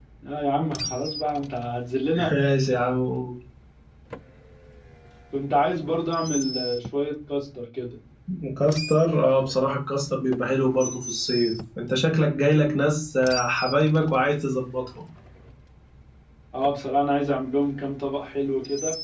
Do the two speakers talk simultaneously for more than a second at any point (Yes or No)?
No